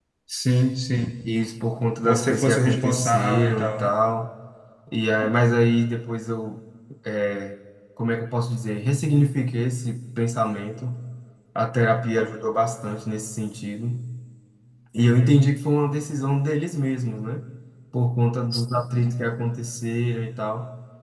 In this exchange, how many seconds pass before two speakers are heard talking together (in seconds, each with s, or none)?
2.0 s